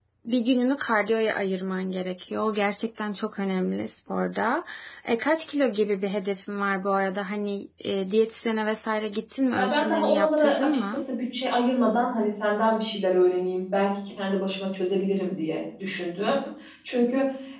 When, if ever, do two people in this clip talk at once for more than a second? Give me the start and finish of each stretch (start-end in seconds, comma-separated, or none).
9.5-11.0